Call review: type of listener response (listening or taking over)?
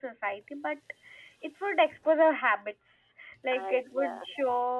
listening